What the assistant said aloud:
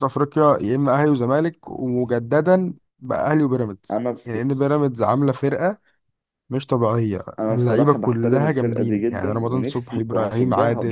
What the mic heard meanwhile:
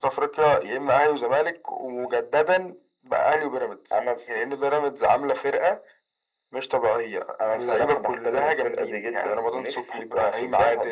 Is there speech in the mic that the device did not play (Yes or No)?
No